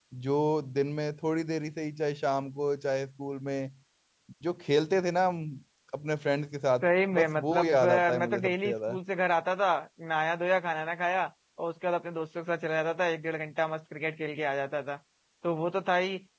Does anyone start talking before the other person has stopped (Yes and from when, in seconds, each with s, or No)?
Yes, from 7.1 s